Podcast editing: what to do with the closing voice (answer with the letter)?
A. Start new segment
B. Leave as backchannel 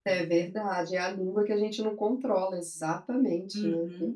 A